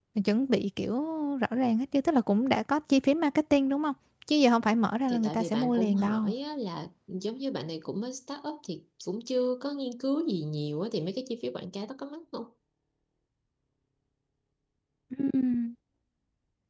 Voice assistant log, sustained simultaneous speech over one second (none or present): present